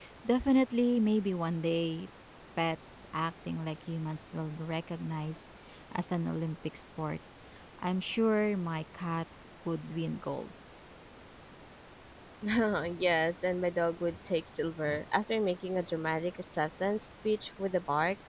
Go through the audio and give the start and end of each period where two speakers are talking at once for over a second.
none

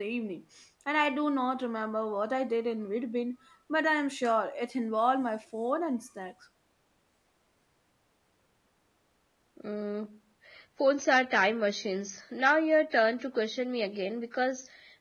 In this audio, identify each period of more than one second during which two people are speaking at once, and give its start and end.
none

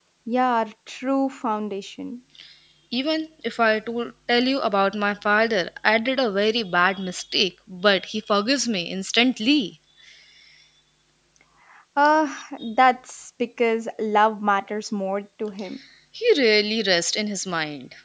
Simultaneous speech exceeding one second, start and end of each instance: none

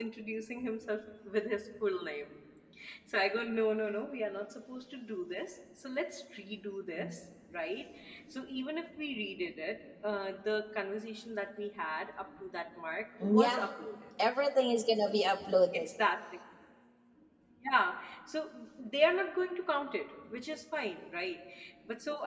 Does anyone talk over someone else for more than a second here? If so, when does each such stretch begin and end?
none

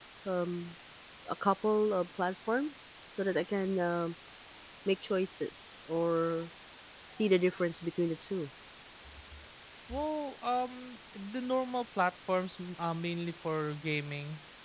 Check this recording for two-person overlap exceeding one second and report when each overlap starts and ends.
none

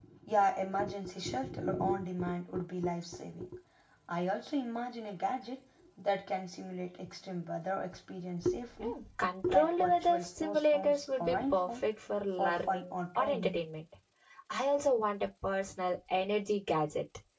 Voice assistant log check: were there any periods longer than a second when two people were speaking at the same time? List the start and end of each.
9.5-11.8, 12.4-13.6

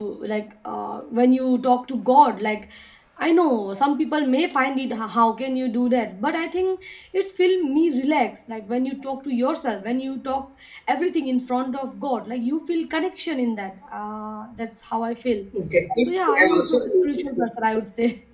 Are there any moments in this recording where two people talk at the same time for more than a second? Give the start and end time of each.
16.1-17.4

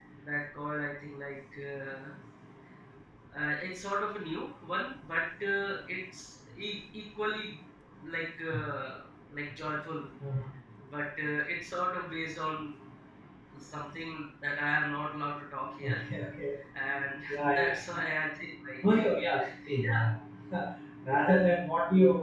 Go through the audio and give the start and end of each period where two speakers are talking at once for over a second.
none

